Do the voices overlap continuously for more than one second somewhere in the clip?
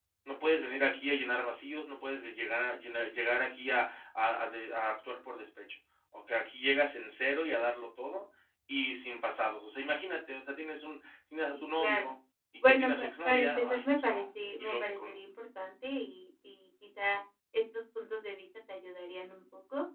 Yes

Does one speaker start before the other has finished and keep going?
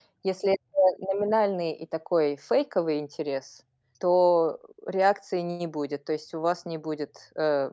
No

